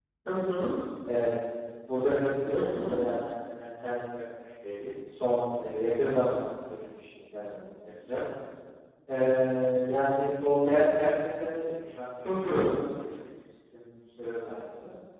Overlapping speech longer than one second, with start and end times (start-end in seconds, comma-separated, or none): none